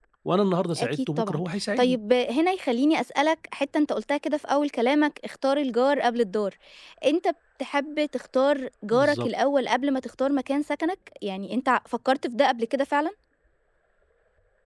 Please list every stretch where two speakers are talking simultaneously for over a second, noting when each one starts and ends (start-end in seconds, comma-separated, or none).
0.8-2.0